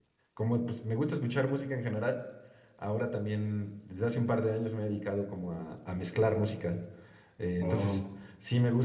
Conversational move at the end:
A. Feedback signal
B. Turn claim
A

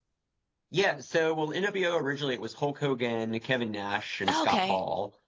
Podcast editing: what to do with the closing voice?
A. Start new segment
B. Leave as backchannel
B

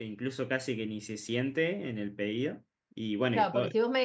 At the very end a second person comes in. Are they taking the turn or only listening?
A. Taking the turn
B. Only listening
A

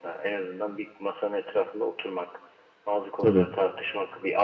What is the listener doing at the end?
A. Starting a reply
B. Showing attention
B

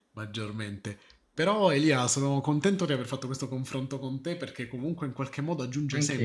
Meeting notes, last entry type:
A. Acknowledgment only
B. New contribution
A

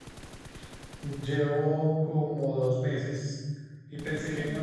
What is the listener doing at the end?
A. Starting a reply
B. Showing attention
B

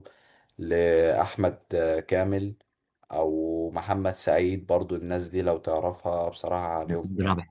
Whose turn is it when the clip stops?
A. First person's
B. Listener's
B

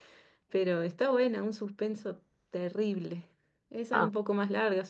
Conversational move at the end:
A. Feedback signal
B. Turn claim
A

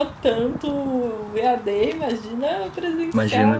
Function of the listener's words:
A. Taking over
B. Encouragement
A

